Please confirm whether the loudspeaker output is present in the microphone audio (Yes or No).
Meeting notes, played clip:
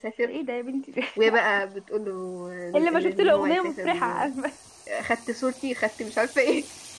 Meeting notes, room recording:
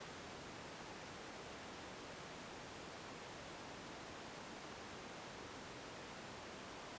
No